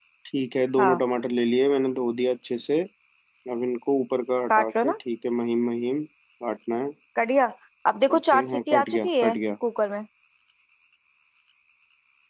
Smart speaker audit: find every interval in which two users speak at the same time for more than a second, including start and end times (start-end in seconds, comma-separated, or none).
8.2-9.4